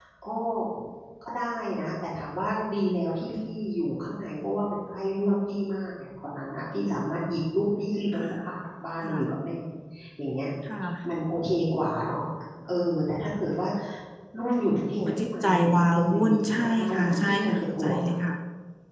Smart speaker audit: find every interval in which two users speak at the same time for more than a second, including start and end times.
14.9-18.1

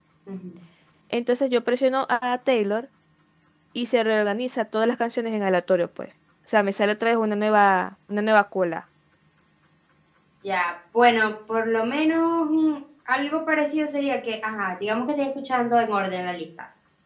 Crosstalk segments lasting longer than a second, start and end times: none

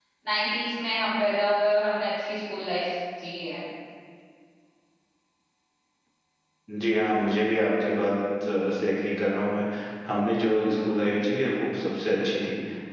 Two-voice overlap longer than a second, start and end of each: none

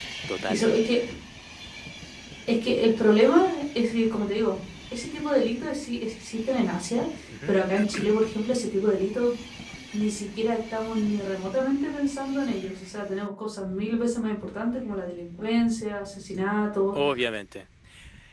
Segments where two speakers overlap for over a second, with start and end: none

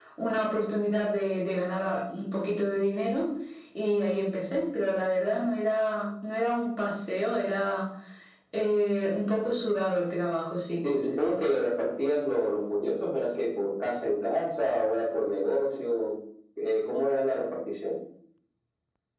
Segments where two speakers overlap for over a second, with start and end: none

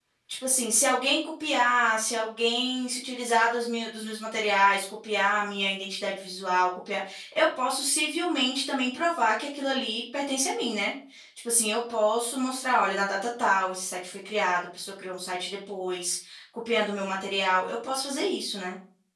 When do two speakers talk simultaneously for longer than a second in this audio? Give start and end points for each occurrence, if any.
none

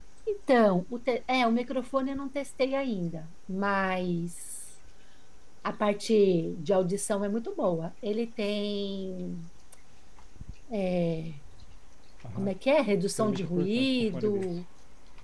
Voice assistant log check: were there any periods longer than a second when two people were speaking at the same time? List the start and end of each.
13.2-14.5

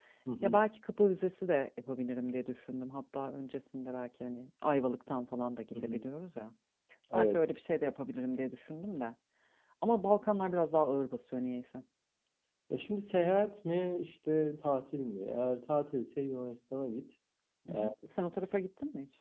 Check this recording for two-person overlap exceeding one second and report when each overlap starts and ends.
none

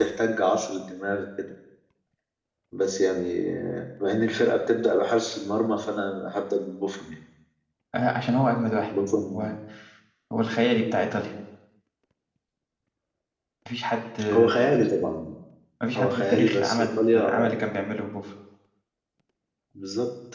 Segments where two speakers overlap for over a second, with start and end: 16.0-17.3

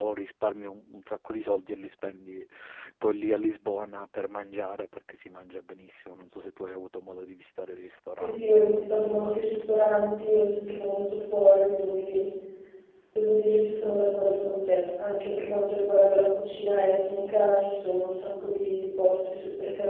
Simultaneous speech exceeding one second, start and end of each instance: 8.1-9.7

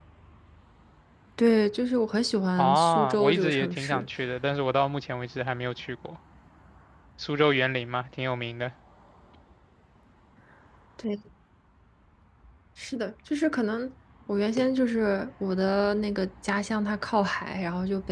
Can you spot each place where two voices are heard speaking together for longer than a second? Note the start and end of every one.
2.6-4.0

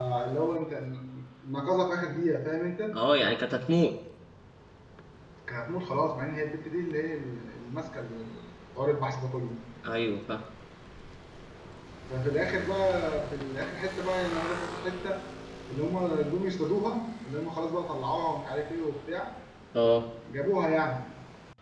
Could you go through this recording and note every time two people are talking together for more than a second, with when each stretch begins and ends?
none

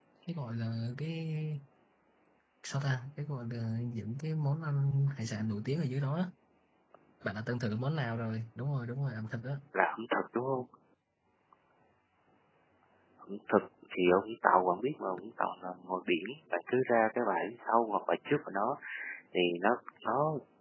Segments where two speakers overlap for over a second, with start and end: none

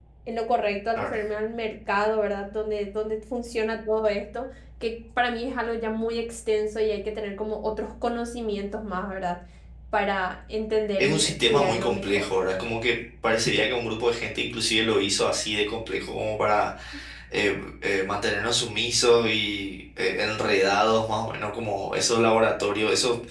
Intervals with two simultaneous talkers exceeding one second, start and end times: 11.0-12.3

